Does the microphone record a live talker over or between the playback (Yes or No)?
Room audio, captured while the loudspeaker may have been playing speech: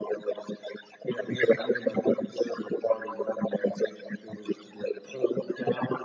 No